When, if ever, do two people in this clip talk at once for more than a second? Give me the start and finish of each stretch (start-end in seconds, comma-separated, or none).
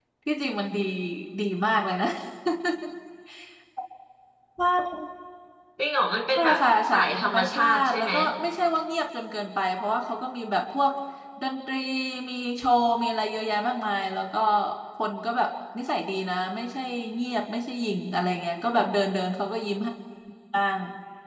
6.4-8.1